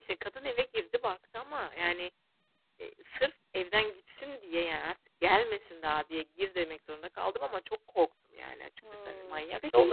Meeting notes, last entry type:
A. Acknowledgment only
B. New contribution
B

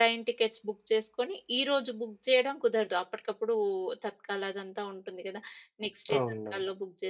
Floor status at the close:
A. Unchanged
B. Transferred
A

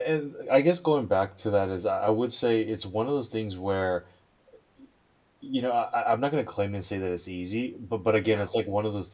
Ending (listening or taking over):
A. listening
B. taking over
A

